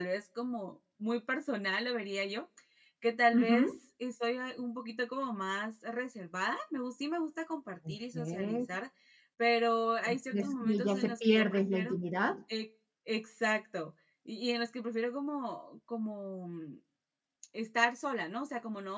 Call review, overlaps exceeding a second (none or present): present